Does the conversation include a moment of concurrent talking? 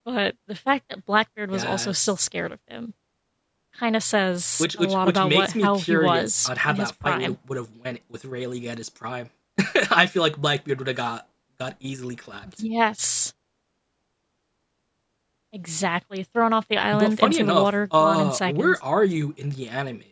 Yes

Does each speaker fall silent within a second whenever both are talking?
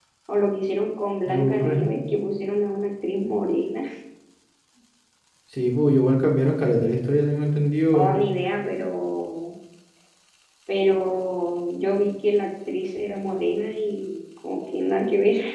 Yes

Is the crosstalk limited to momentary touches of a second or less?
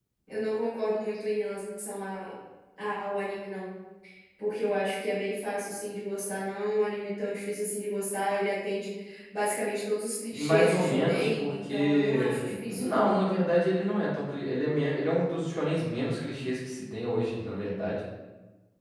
No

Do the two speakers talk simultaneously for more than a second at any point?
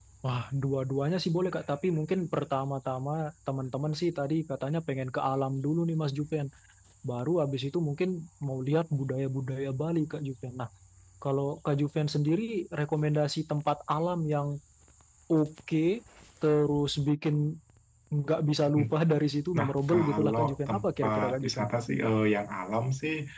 Yes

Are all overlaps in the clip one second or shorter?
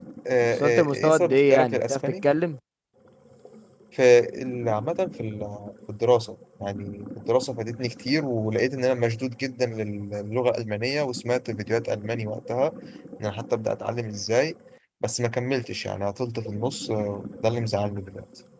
No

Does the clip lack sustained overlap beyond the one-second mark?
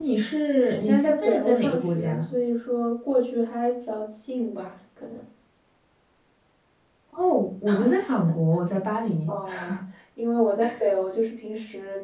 No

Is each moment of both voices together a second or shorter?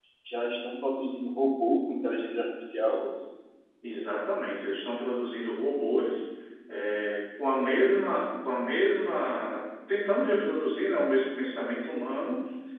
Yes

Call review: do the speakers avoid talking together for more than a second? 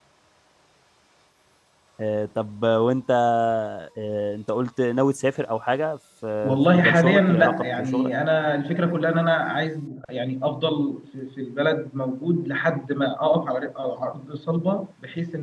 No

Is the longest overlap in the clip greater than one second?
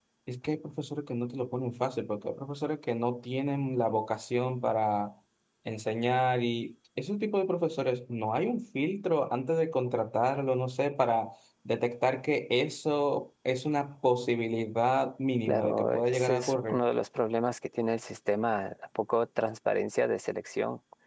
Yes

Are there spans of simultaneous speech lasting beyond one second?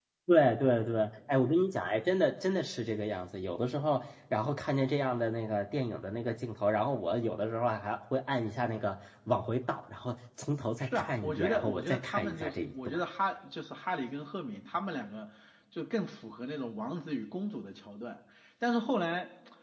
Yes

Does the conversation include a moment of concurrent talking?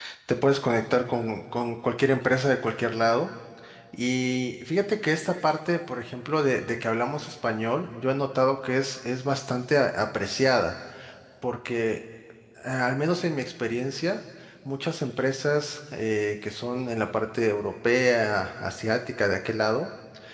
No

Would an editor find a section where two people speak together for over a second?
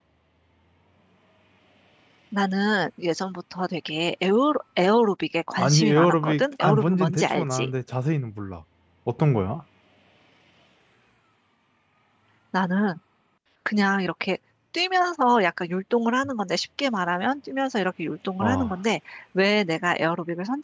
Yes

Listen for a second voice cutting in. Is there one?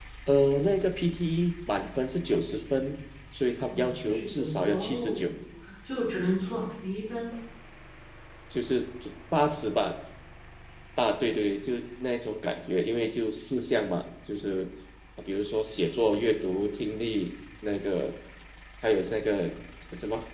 Yes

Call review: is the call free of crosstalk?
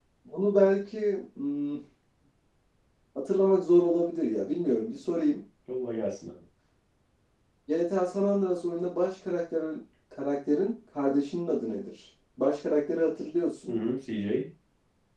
Yes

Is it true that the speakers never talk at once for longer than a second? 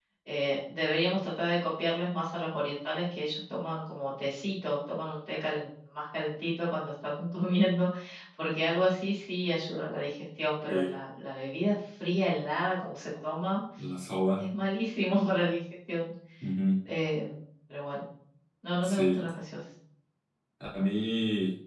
Yes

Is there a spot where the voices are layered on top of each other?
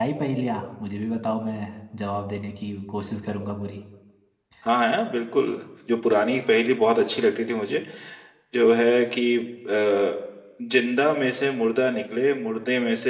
No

